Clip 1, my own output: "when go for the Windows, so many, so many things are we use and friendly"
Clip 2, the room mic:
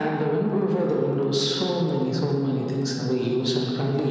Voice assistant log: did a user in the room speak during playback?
No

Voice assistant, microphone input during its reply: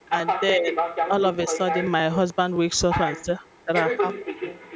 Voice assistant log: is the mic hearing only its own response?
No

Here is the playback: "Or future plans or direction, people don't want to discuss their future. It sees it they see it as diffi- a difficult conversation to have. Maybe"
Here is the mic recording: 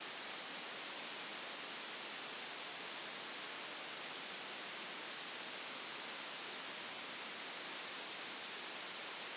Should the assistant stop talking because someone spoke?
No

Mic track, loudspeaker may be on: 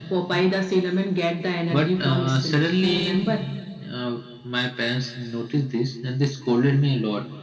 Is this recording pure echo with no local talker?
Yes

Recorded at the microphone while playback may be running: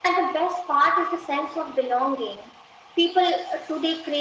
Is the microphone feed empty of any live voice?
Yes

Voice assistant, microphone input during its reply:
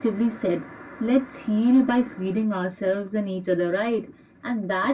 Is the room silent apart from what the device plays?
Yes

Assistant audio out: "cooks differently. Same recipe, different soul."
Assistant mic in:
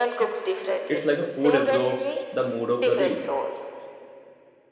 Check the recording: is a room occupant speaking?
Yes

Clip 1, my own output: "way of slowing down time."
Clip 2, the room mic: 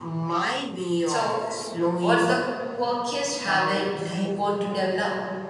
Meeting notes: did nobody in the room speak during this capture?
No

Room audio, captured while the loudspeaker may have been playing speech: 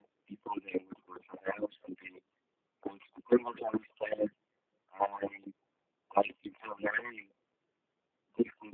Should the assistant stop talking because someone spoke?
No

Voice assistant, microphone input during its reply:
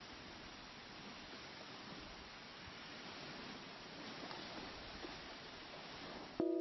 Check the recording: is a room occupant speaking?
No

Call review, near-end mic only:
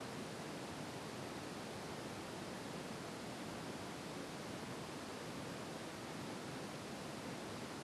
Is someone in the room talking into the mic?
No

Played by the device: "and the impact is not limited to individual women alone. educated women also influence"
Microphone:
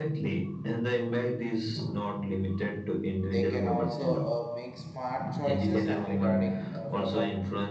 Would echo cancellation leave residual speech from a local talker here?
Yes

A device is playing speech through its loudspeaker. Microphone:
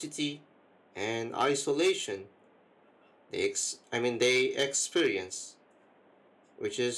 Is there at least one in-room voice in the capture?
Yes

